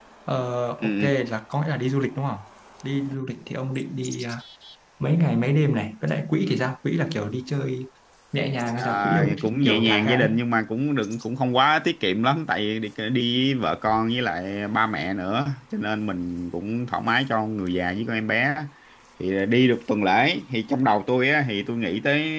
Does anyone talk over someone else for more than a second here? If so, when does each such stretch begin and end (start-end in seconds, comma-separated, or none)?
8.8-10.3